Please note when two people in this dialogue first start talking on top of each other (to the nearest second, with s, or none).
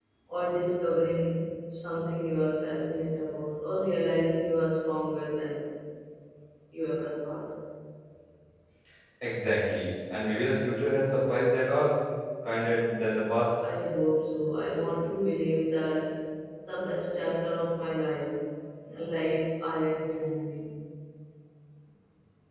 none